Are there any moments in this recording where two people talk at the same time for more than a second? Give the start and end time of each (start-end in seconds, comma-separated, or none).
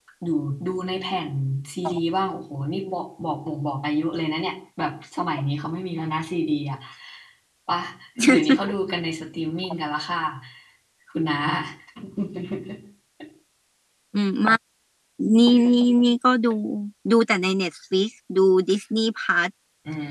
none